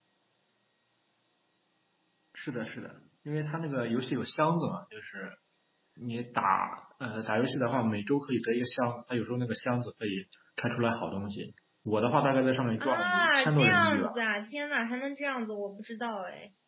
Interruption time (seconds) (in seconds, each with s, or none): 12.8 s